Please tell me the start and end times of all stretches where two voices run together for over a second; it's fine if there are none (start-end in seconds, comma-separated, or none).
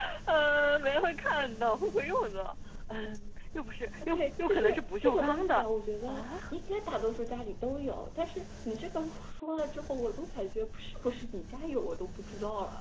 4.1-5.6